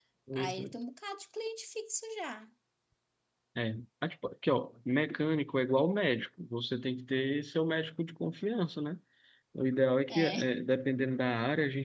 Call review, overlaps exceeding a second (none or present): none